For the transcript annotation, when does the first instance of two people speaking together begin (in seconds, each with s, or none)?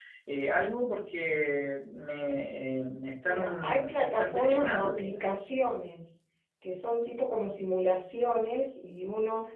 3.2 s